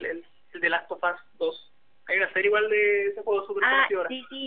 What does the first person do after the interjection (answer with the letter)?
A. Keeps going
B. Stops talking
B